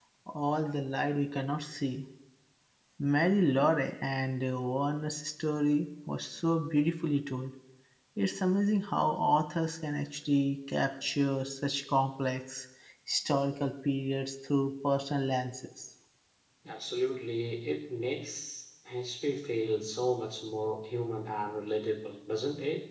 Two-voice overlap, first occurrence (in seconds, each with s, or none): none